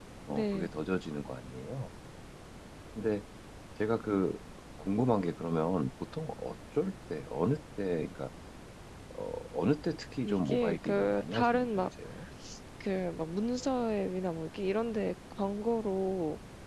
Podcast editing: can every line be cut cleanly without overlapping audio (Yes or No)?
No